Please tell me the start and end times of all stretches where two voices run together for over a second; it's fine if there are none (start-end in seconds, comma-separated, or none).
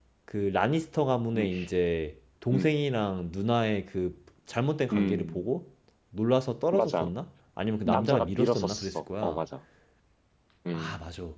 7.8-9.4